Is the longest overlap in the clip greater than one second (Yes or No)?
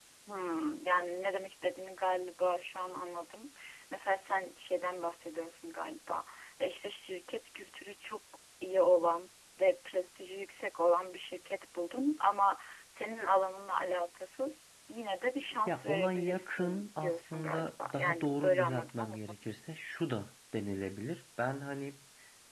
Yes